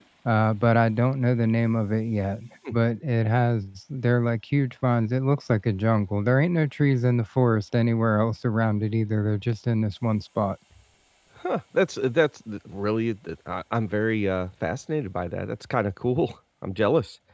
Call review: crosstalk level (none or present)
none